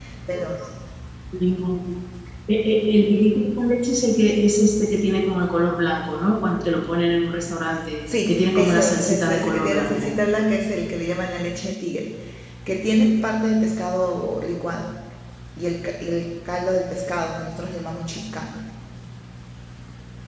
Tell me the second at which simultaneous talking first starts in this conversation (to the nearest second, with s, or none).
8 s